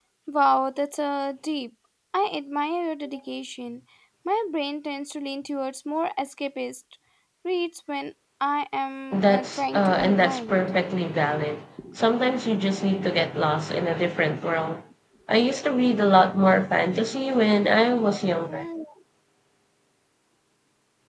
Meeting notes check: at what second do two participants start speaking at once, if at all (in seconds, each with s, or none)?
9.1 s